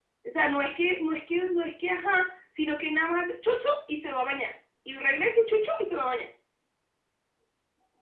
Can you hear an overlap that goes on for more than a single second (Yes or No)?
No